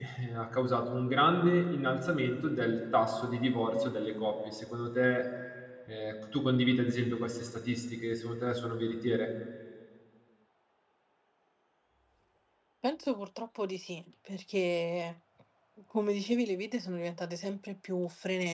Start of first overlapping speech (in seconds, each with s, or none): none